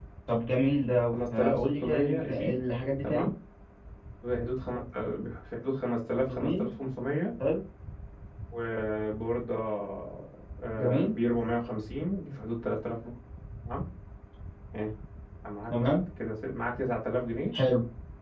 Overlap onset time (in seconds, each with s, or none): 1.1 s